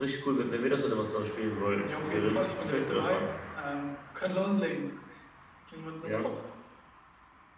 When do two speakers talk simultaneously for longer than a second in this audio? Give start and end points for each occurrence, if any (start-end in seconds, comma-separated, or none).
1.8-3.2